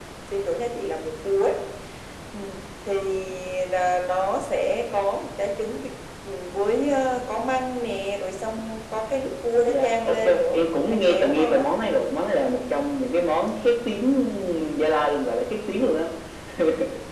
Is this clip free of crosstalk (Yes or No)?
No